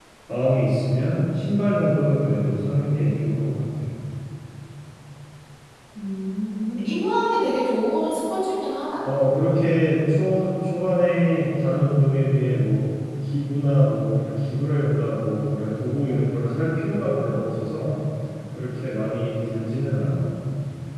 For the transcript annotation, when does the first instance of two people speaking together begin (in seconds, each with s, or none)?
none